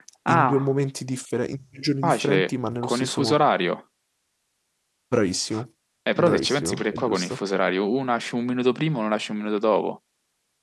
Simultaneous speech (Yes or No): Yes